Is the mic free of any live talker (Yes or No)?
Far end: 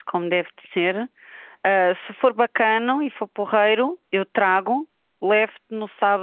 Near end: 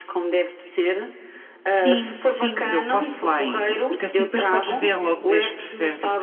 No